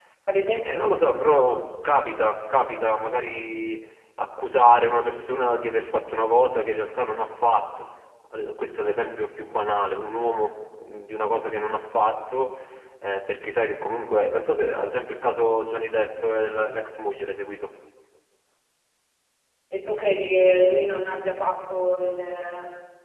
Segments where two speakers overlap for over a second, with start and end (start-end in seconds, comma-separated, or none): none